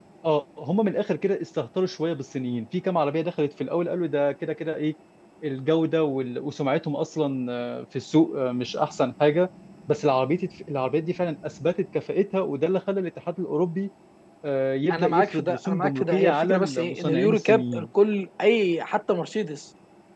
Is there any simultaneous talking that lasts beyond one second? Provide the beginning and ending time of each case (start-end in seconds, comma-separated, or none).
14.9-17.9